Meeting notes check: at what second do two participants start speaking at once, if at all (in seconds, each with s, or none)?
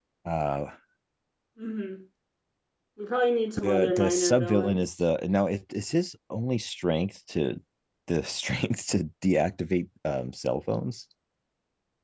3.6 s